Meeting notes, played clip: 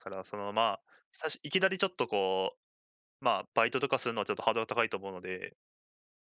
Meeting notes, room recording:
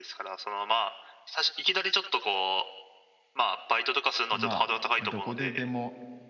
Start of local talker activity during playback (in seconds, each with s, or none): 4.3 s